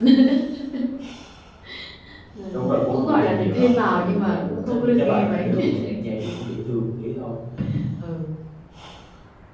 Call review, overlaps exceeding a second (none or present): present